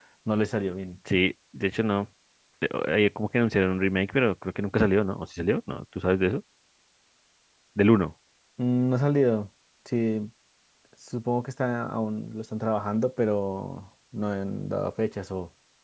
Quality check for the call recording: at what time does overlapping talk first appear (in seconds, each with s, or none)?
none